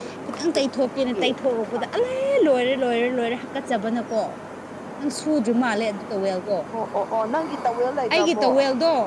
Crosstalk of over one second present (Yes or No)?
No